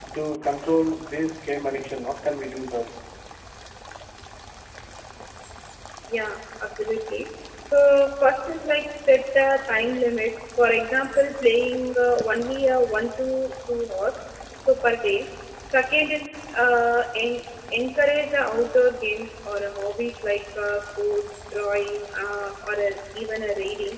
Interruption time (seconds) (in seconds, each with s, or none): none